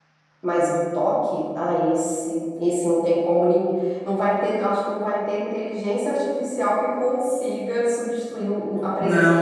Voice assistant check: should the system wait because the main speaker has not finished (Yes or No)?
No